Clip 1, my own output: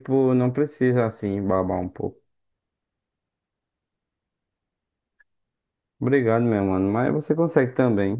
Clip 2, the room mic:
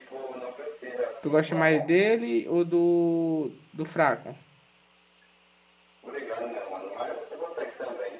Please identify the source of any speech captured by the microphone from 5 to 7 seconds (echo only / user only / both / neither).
echo only